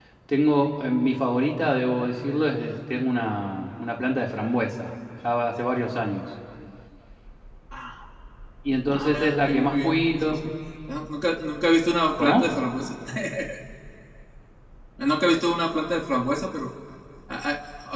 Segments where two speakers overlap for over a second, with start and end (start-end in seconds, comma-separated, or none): 8.9-10.4